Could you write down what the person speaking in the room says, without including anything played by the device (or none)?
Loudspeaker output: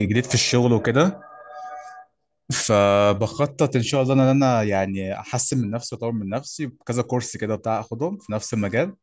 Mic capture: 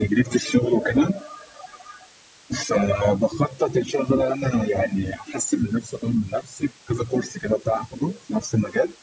none